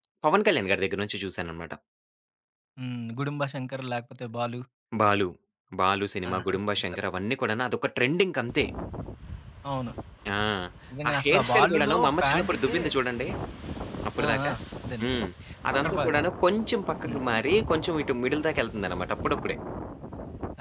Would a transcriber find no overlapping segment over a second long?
No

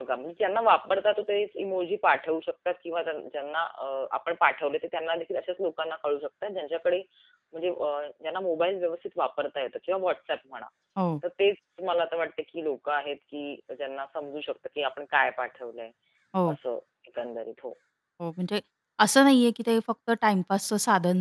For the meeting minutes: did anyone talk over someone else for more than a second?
No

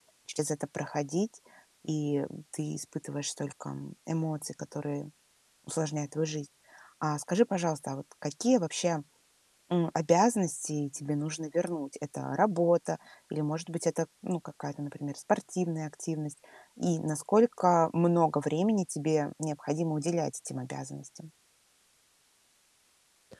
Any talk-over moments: No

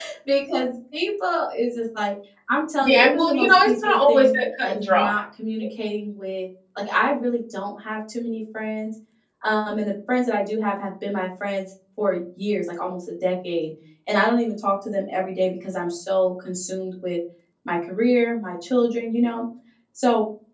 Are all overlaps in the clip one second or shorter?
No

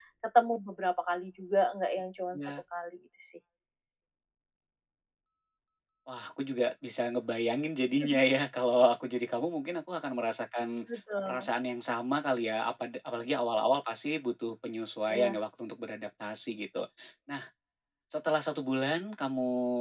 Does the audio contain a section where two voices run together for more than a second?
No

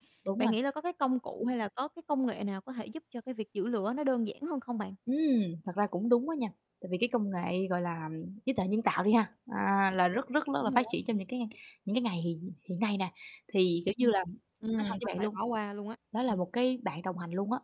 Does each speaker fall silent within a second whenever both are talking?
Yes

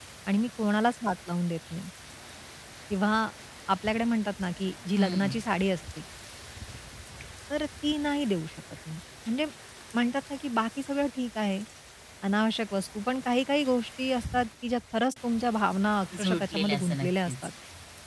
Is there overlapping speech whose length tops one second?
Yes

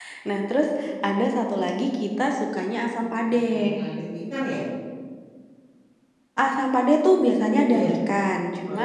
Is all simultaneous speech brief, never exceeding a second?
Yes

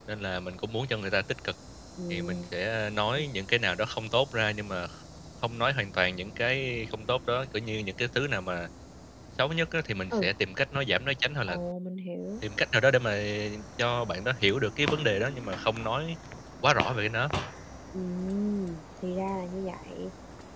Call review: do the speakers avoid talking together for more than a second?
Yes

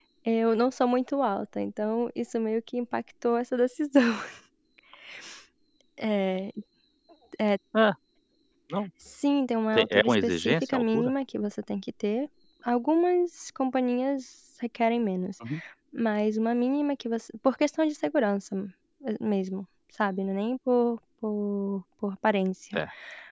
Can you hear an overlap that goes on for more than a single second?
Yes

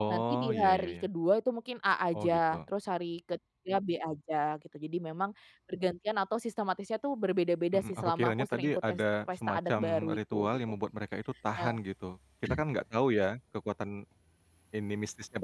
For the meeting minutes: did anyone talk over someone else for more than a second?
Yes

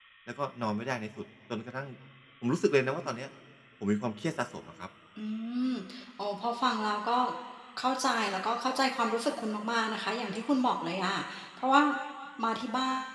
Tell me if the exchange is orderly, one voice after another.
Yes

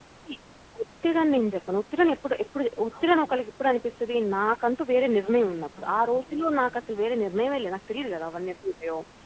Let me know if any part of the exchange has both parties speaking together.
Yes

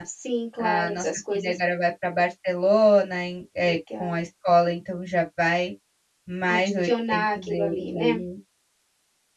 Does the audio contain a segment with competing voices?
Yes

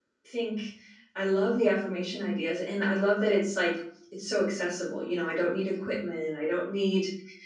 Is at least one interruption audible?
No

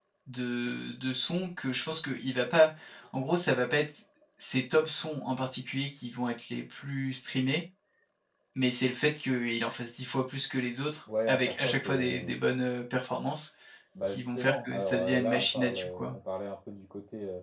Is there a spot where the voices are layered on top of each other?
Yes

